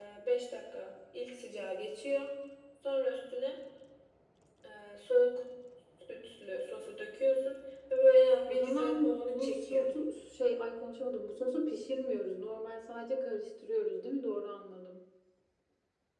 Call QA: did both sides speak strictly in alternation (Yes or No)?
No